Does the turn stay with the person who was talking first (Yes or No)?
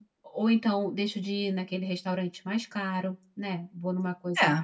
Yes